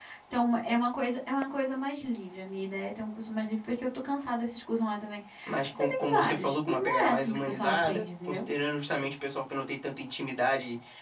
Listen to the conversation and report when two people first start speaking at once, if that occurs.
5.5 s

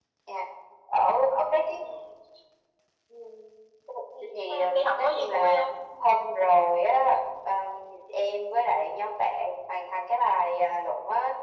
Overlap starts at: 4.3 s

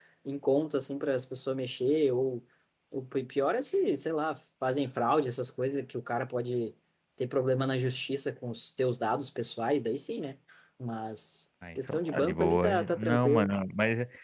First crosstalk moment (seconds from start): 11.6 s

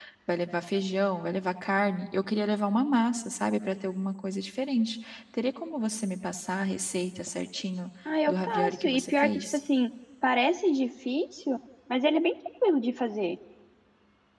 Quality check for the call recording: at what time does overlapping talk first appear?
8.1 s

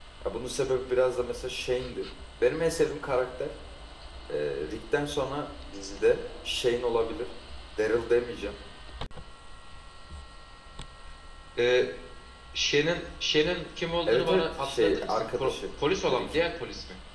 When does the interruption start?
14.1 s

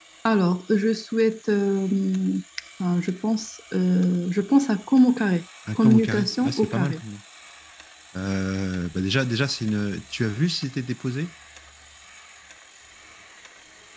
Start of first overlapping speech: 5.7 s

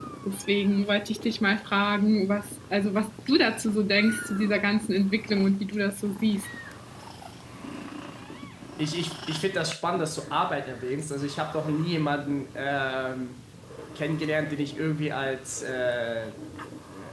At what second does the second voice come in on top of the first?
none

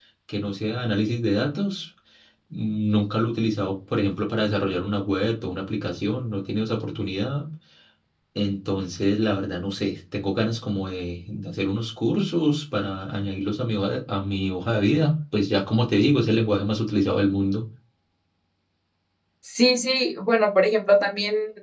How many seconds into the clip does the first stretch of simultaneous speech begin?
none

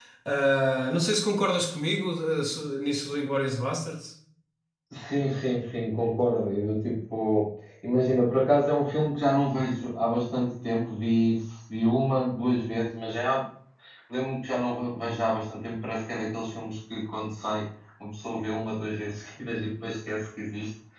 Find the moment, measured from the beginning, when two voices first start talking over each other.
none

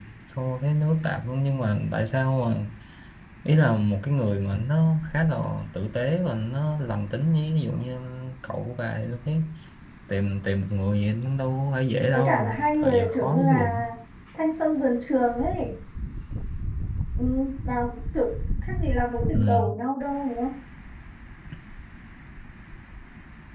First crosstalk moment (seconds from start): 12.1 s

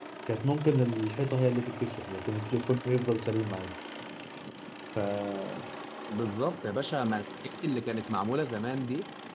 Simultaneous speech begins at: none

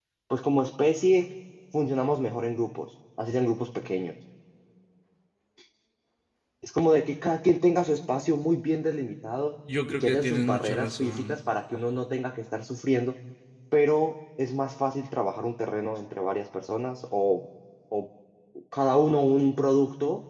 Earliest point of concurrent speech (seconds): 9.9 s

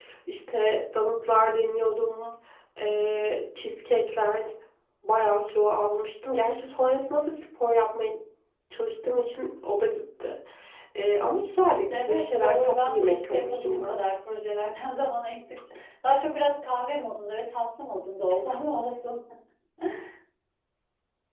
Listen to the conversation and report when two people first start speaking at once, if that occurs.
11.9 s

